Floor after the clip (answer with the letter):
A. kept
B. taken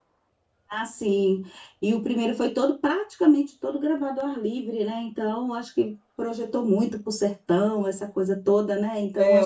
B